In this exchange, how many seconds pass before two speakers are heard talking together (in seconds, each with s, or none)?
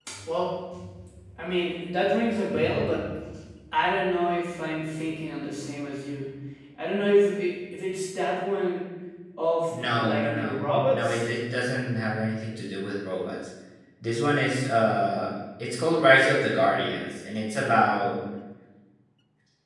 9.7 s